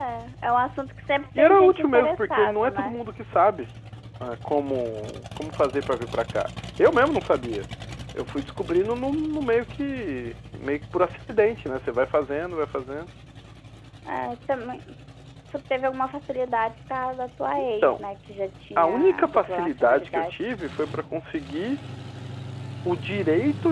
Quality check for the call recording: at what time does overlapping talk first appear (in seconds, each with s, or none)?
1.4 s